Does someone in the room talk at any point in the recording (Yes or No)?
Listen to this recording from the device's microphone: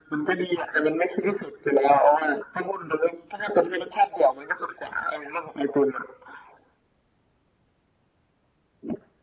No